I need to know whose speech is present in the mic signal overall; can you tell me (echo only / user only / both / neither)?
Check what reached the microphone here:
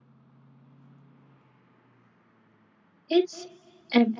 user only